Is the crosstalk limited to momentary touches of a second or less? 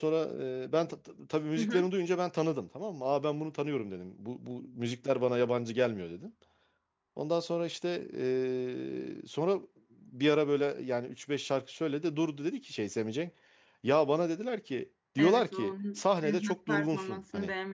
No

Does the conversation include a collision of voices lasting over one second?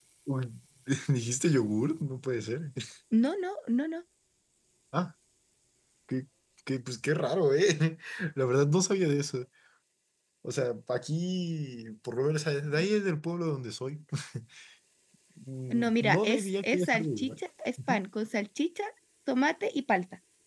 Yes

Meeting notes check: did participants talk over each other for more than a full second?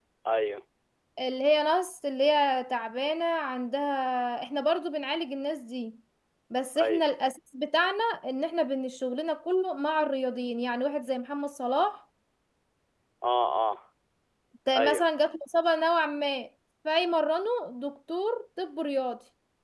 No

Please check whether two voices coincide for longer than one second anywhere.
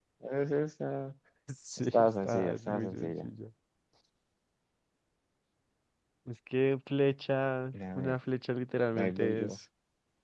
Yes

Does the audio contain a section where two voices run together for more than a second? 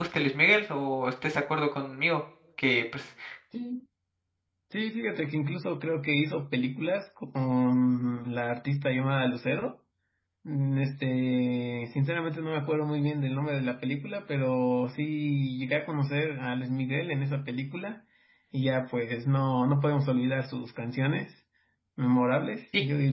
No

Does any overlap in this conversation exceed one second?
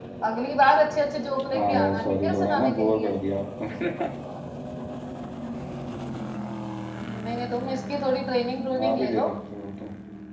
Yes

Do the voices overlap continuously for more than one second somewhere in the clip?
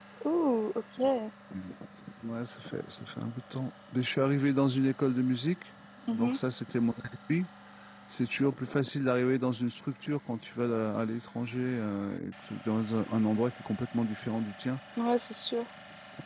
No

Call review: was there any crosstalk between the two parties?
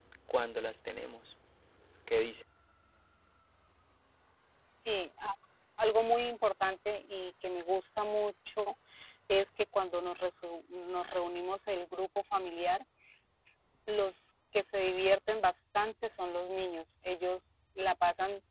No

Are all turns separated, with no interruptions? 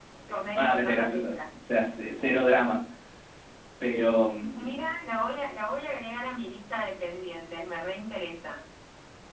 No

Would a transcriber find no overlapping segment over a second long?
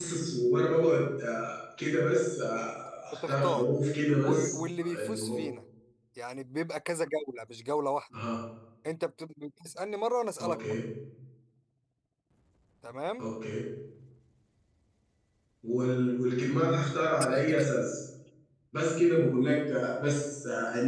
No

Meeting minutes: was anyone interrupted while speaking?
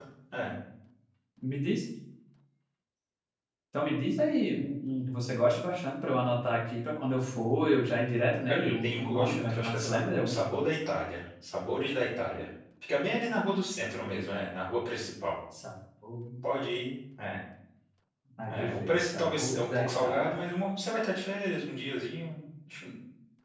Yes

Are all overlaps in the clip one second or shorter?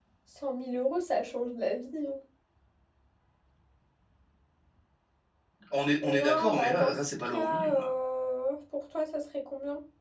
No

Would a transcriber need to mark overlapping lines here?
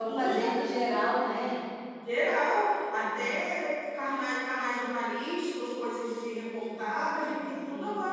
Yes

